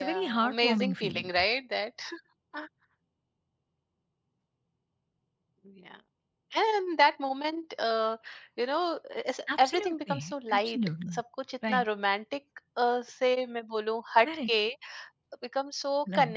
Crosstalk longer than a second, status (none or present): present